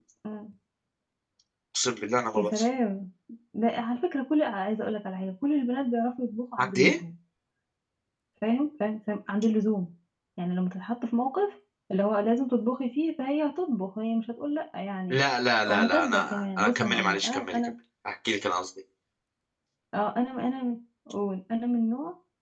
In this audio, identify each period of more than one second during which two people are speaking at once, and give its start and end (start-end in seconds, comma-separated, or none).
15.7-17.7